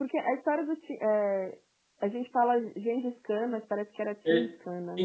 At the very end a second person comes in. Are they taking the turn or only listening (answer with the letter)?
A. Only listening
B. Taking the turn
B